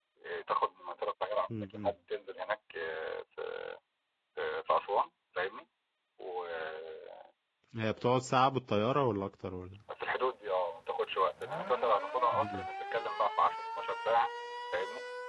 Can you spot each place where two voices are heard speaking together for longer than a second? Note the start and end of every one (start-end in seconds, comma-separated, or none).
none